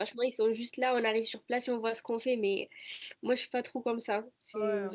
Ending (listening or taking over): taking over